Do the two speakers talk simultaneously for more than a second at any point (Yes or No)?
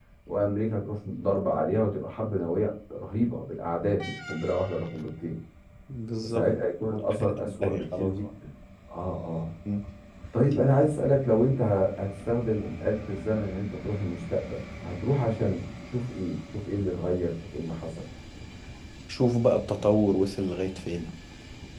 Yes